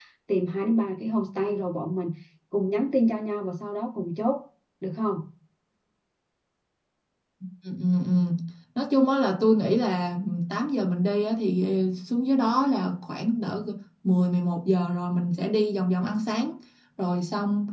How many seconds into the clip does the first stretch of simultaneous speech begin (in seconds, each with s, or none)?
none